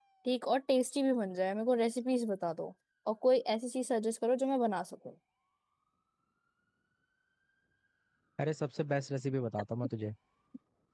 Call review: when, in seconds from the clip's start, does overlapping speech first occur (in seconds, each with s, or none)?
none